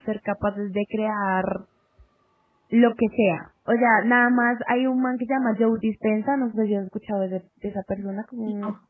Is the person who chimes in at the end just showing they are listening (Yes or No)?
Yes